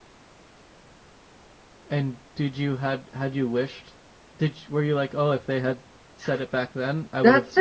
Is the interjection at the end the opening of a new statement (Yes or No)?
Yes